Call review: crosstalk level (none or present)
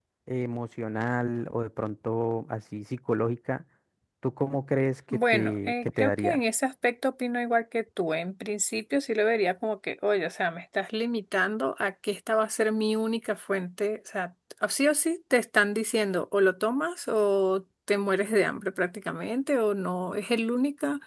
present